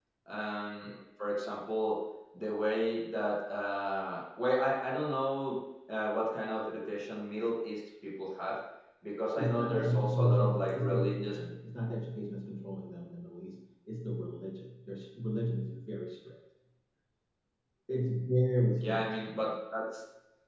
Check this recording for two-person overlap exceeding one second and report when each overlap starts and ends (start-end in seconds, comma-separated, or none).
9.3-11.4